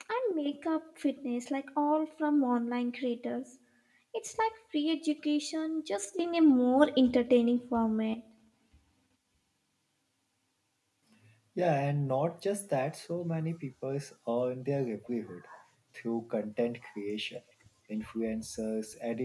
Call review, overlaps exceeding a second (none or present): none